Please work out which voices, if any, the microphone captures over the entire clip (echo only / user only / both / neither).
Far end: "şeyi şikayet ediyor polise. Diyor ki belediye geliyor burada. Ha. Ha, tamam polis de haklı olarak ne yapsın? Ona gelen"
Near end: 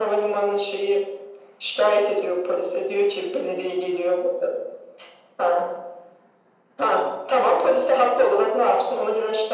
echo only